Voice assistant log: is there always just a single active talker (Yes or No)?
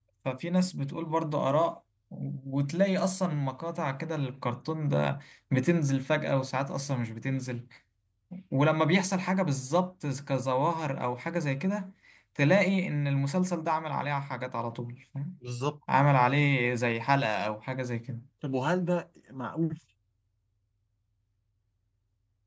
Yes